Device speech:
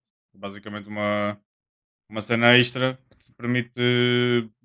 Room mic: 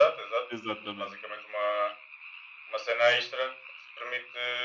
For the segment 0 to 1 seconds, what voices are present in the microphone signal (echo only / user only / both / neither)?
both